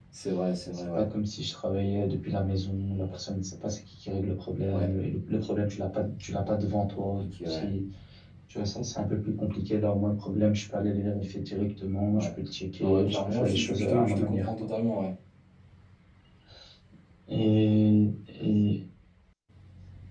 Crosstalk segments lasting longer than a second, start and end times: 12.8-14.5

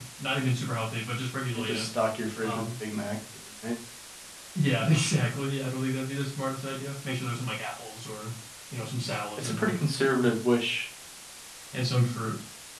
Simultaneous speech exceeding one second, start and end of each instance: none

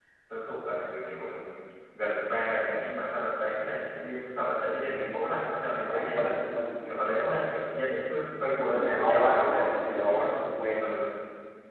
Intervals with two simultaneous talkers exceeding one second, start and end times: 8.6-10.4

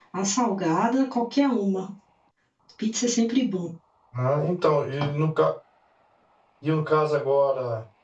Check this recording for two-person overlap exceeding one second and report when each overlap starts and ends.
none

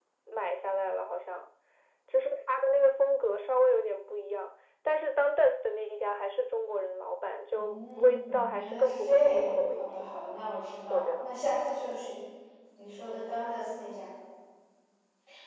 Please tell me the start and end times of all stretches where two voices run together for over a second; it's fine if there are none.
7.5-9.9

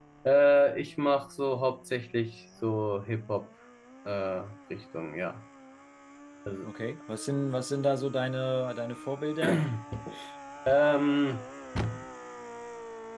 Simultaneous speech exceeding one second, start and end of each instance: none

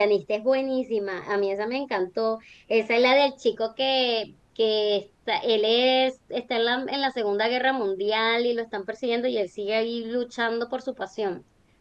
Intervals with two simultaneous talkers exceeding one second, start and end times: none

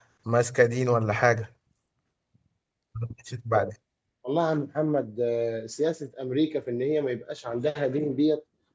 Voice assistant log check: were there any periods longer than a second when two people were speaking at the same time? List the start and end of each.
none

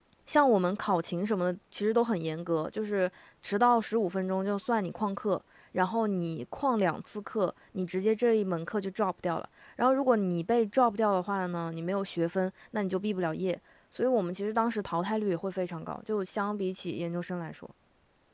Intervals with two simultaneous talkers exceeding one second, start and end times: none

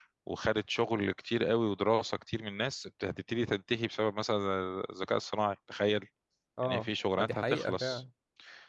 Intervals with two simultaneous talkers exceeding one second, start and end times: 6.7-8.0

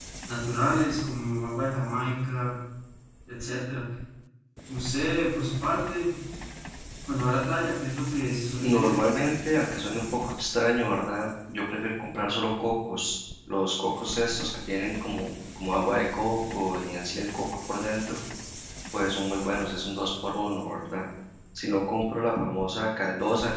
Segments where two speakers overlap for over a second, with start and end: none

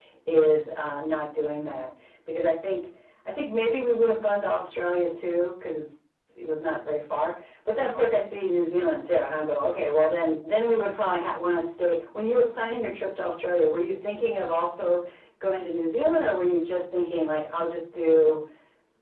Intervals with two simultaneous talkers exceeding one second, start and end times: none

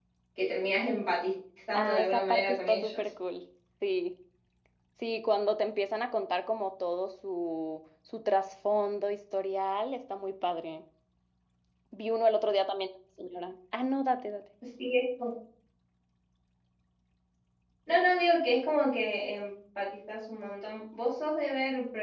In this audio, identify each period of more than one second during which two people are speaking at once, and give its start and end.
1.7-3.1

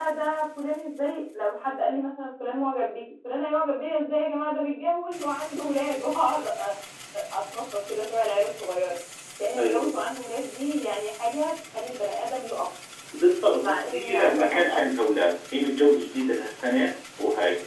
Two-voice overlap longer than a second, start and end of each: 13.6-14.8

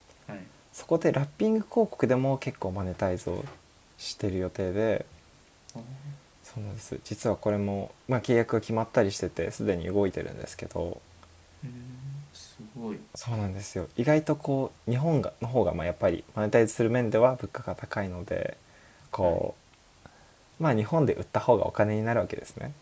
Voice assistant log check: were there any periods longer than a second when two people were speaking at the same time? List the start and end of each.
none

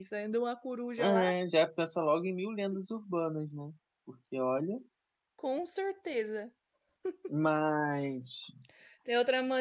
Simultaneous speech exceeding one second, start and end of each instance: none

